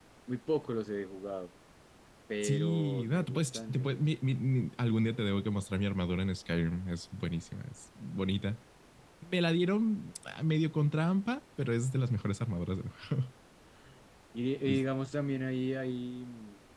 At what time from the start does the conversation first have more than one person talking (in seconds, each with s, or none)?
2.4 s